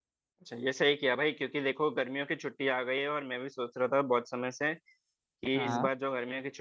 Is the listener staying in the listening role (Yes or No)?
Yes